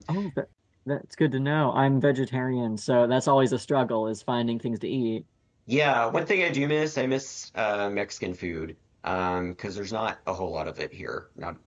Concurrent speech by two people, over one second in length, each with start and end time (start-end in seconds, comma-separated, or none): none